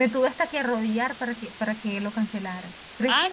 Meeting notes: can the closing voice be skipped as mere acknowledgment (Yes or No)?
No